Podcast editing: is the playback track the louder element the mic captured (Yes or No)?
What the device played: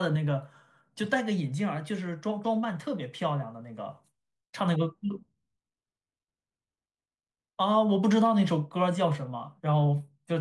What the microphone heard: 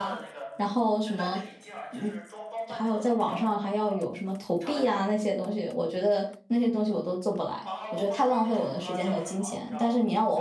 No